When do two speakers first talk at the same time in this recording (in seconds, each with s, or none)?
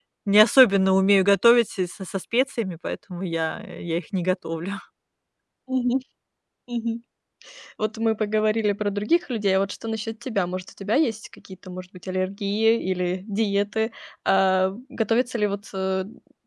none